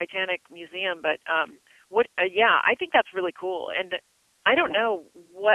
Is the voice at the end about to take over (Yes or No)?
No